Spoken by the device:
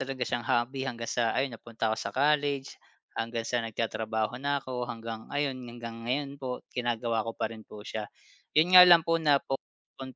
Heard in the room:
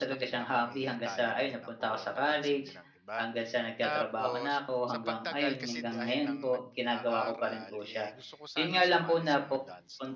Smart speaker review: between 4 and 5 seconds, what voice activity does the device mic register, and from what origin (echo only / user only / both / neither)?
both